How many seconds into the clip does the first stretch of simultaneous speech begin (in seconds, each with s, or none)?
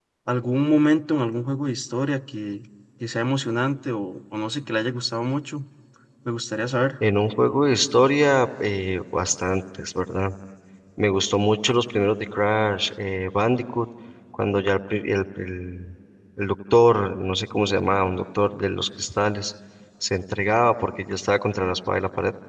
none